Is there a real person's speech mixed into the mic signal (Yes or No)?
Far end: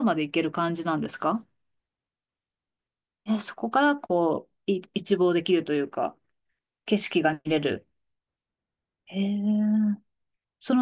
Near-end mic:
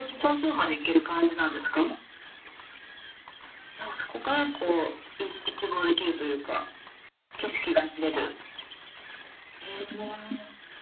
No